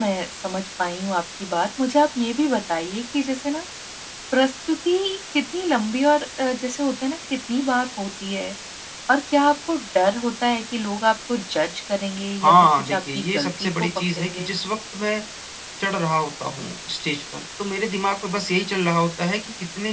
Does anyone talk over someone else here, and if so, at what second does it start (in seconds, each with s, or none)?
12.4 s